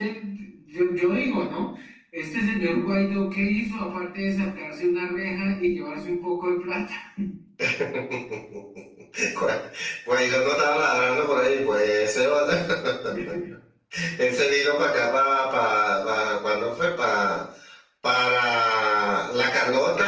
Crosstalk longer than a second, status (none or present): none